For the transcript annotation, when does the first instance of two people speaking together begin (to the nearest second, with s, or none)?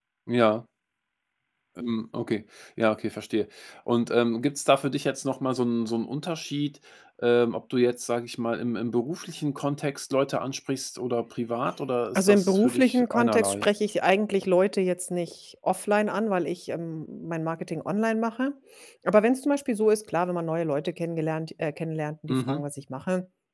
12 s